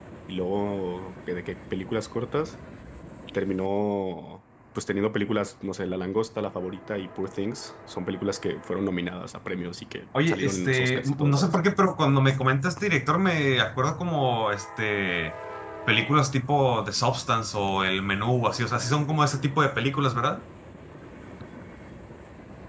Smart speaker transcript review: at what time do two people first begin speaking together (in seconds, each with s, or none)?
10.1 s